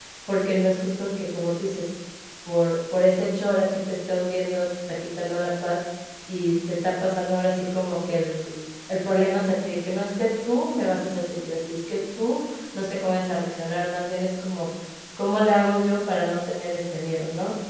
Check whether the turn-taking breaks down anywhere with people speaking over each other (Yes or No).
No